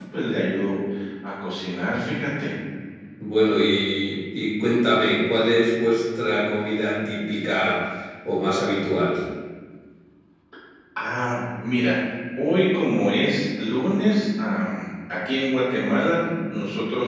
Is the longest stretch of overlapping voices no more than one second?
Yes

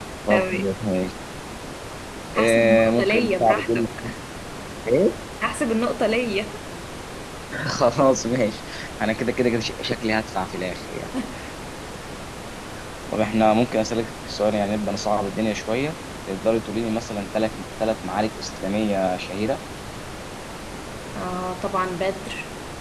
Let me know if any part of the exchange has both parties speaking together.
Yes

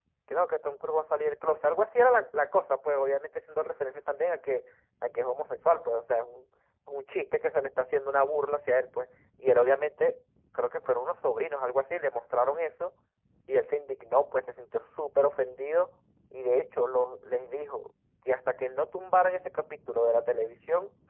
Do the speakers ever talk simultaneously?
No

